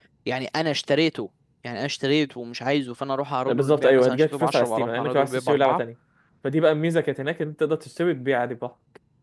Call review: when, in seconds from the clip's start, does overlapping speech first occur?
3.5 s

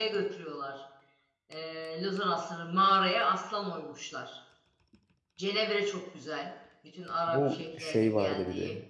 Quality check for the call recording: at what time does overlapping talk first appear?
7.3 s

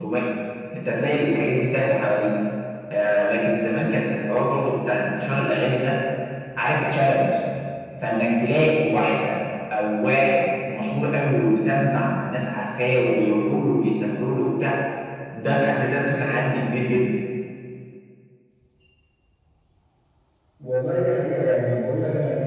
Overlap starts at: none

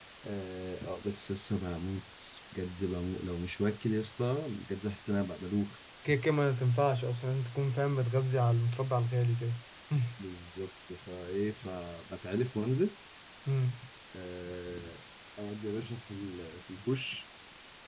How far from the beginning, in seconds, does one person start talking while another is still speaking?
none

